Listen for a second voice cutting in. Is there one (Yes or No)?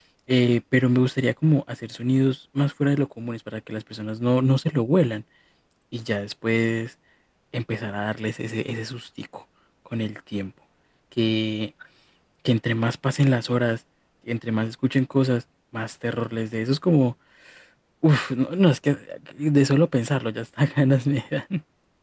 No